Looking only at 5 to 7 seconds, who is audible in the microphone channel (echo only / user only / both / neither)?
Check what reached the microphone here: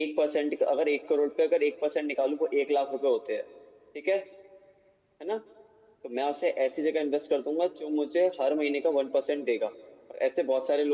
echo only